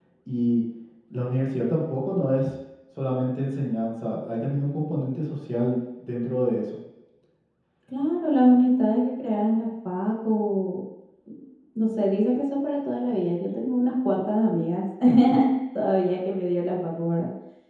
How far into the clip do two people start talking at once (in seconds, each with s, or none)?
none